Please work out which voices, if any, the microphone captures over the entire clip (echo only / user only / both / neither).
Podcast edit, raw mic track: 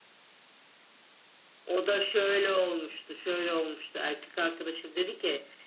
echo only